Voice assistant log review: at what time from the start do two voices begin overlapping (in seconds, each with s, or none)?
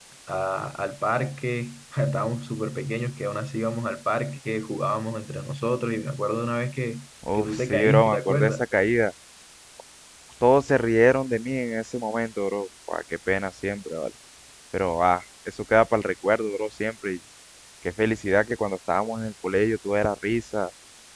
7.2 s